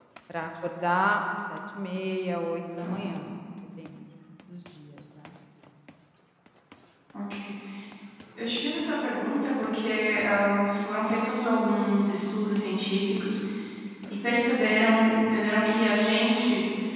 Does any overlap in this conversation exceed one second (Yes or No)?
No